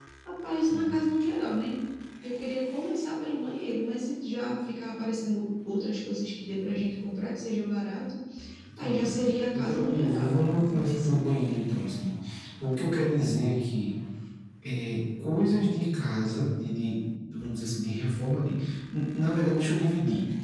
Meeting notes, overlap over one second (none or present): present